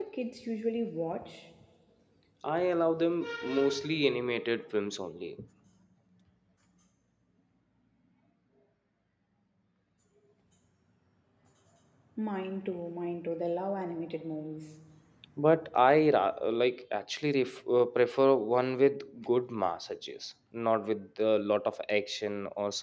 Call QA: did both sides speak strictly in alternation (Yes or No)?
Yes